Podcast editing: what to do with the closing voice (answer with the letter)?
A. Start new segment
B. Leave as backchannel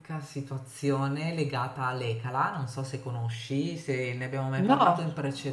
B